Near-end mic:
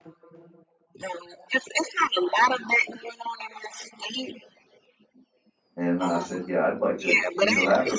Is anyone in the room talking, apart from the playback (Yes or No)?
Yes